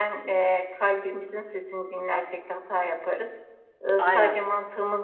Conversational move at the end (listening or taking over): listening